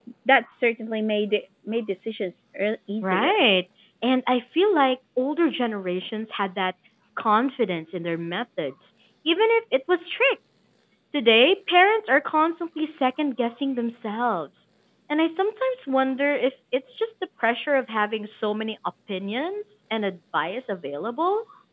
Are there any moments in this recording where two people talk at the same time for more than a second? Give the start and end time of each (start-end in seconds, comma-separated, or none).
none